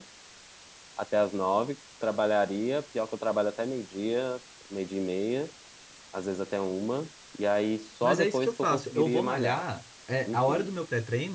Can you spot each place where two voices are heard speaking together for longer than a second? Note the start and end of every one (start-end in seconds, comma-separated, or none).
8.0-9.6